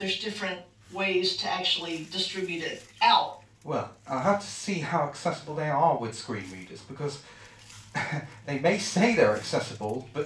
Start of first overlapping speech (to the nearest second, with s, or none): none